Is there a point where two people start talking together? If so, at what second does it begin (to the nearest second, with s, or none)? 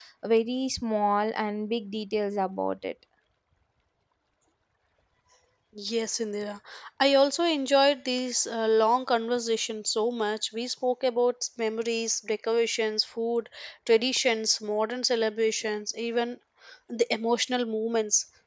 none